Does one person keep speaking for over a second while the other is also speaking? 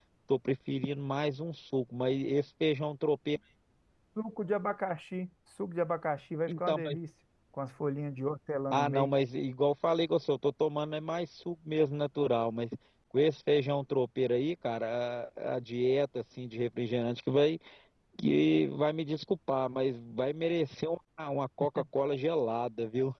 No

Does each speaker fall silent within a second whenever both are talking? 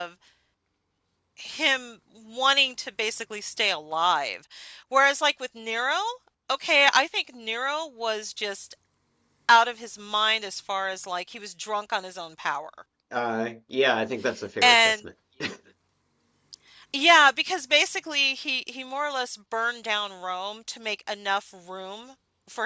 Yes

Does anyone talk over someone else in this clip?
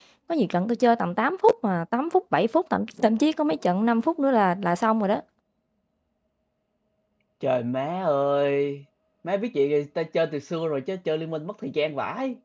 No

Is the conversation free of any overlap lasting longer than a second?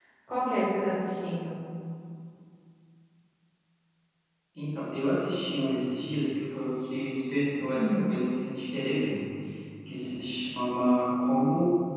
Yes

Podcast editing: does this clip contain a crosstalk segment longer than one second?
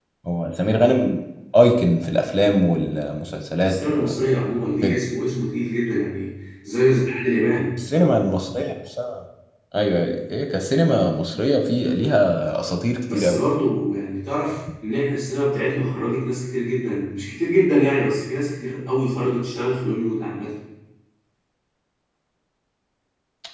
No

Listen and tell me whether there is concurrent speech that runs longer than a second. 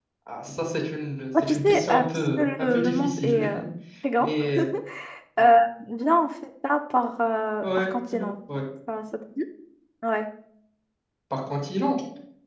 Yes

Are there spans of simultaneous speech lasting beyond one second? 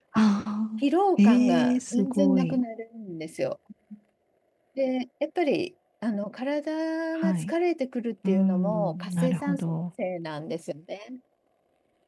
Yes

